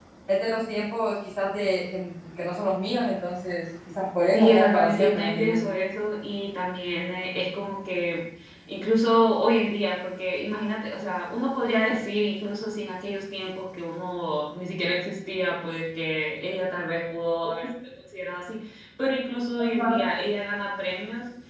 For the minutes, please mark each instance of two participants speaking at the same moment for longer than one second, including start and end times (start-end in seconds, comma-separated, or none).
4.3-5.6